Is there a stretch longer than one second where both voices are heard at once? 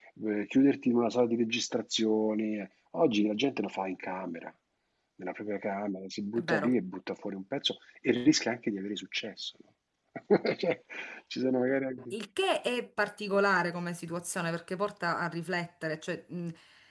No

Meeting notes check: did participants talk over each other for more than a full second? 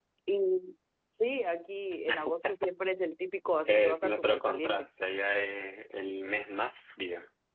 Yes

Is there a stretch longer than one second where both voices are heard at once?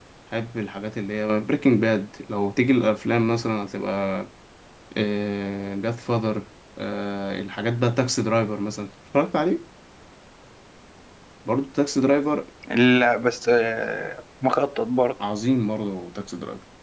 No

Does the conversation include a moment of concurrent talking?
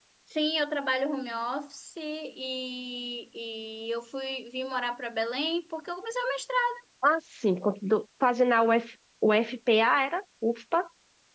No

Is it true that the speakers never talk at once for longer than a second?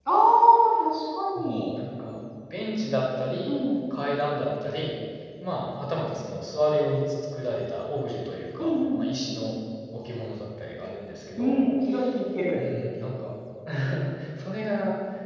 Yes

